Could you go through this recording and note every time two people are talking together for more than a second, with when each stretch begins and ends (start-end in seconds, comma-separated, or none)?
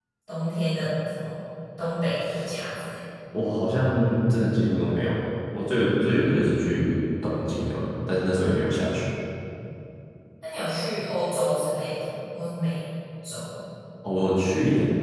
none